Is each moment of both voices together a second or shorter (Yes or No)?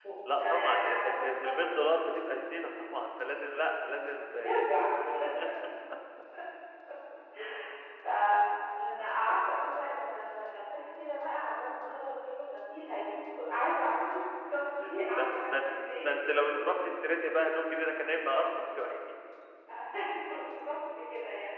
No